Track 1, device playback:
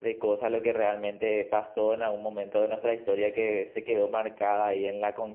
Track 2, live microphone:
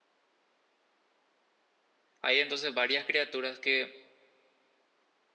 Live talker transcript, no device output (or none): Hay entonces varias criaturas que